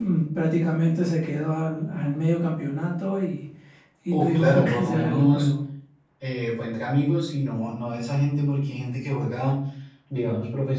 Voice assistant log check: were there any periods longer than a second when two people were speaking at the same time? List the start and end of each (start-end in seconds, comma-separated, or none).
4.1-5.6